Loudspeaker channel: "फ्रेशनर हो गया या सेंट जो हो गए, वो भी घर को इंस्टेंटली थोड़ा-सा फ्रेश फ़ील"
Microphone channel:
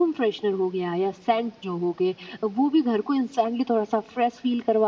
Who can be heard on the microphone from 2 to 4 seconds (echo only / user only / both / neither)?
echo only